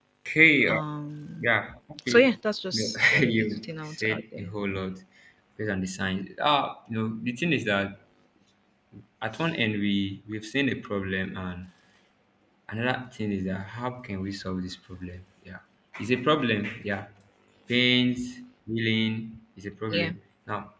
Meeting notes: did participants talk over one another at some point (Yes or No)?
Yes